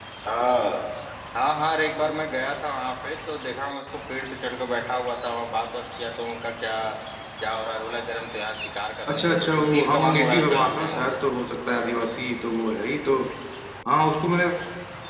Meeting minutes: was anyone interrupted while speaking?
Yes, from 9.1 s

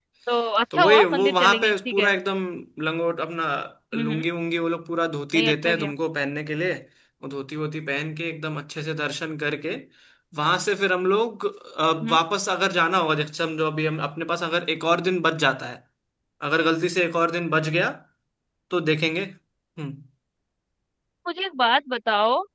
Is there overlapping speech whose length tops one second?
Yes, from 0.7 s

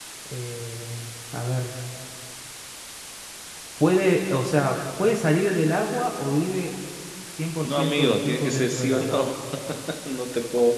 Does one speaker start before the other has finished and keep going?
Yes, from 7.6 s

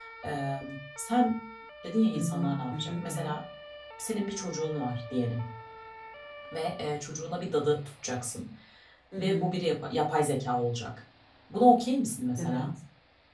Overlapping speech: Yes, from 2.1 s

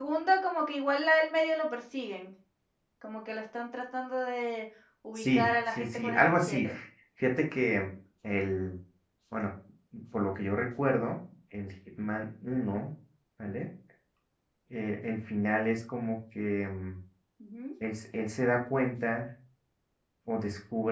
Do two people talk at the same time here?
Yes, from 5.2 s

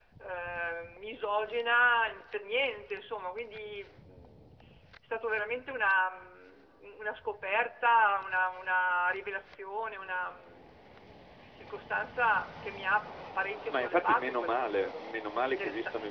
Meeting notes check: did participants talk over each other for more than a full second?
Yes, from 13.7 s

